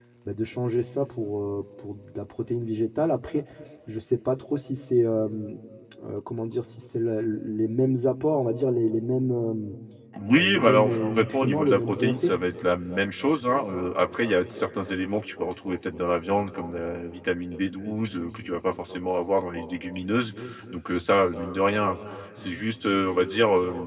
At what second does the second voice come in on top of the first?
10 s

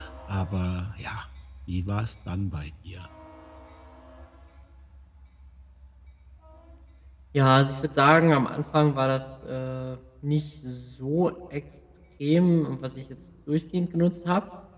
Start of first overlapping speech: none

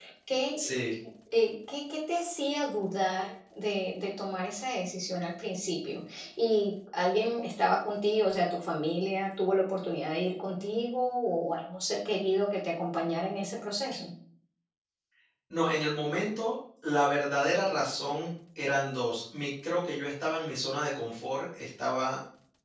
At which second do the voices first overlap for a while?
none

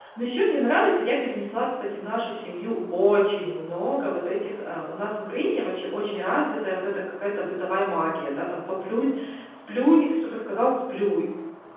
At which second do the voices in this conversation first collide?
none

